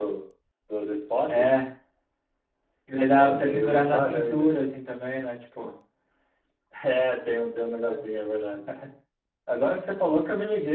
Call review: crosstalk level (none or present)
present